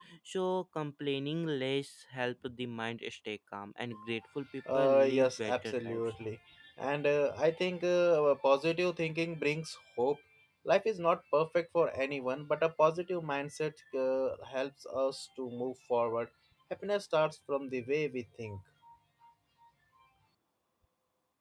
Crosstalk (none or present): present